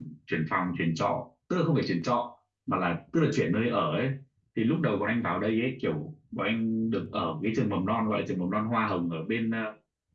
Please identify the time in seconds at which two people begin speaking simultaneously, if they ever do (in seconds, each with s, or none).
none